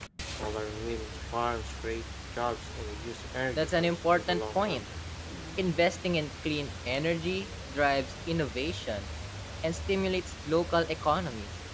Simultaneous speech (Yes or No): Yes